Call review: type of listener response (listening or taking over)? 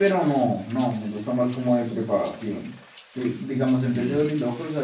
listening